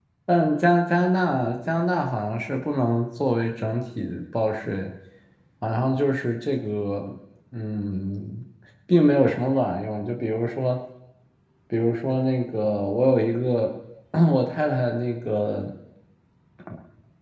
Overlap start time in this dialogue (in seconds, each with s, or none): none